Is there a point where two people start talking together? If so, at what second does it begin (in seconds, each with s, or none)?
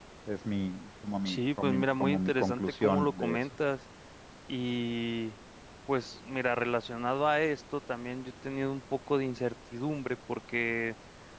1.2 s